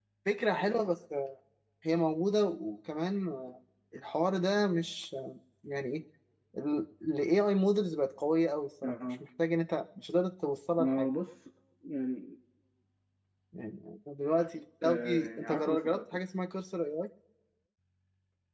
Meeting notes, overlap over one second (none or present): present